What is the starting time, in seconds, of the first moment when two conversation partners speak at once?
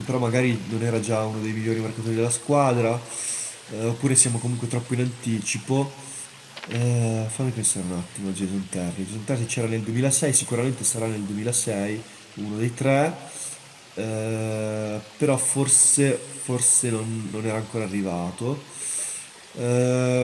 none

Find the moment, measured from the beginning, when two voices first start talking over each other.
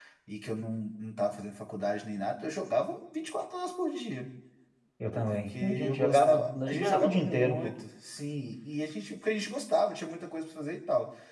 5.1 s

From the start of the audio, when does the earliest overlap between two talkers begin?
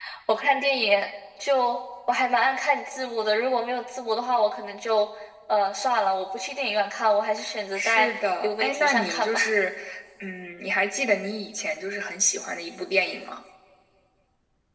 7.8 s

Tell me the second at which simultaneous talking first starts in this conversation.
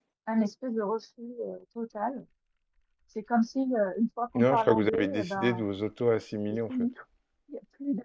4.4 s

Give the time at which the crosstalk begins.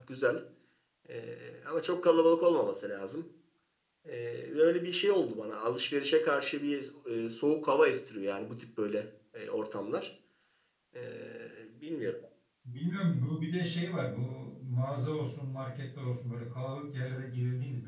none

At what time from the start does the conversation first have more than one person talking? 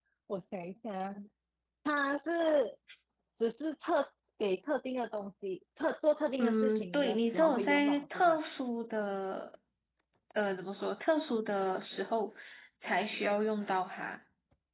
6.4 s

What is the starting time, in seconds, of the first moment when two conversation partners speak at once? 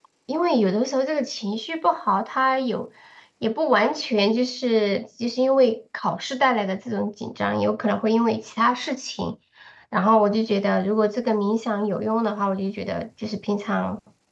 none

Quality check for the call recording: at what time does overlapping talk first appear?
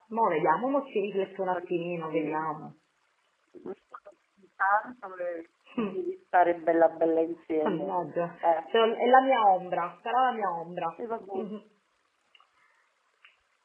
1.2 s

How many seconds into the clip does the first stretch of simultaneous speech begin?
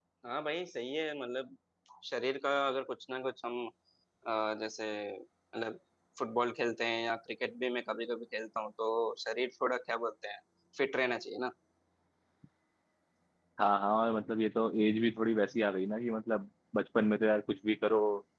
none

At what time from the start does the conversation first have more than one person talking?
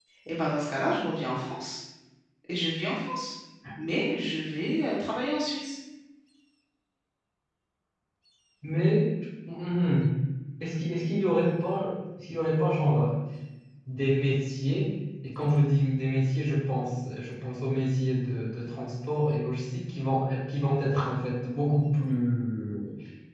none

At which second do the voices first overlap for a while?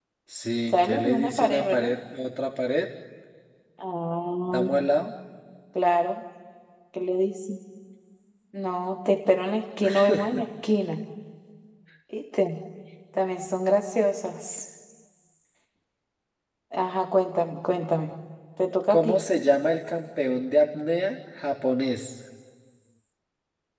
0.7 s

